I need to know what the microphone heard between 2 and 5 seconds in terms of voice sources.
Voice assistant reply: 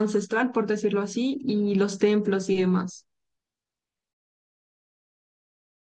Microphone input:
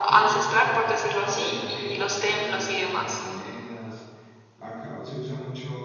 both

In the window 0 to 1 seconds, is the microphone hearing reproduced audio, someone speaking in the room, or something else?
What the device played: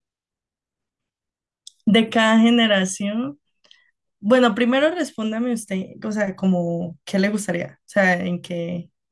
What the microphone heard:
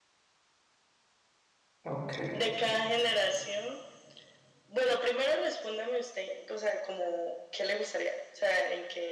neither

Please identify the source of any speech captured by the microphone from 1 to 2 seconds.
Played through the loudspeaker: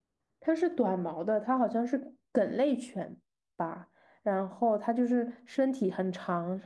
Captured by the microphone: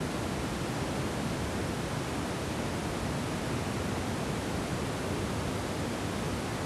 neither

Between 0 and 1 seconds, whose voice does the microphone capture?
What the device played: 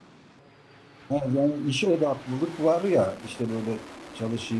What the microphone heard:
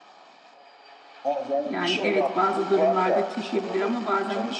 neither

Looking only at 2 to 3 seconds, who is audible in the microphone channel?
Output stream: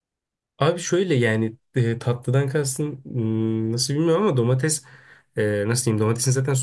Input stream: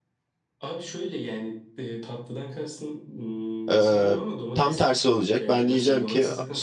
echo only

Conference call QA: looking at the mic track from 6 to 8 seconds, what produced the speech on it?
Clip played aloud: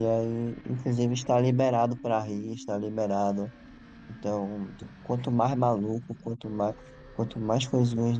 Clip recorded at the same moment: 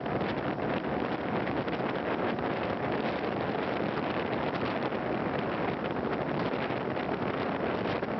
neither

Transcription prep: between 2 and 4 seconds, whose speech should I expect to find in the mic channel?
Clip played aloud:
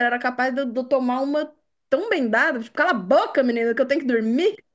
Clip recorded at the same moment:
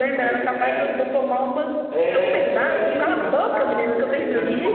both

